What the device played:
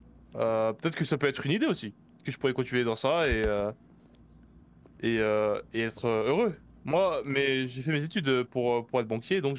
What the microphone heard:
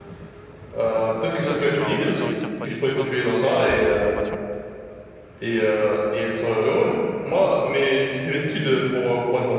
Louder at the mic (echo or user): echo